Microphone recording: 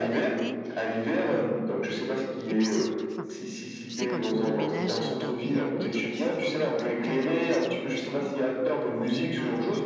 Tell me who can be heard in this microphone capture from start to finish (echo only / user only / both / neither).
both